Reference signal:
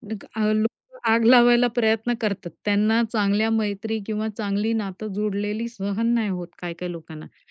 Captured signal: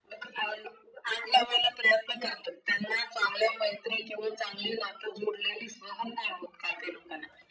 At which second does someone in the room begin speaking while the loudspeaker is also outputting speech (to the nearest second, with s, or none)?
none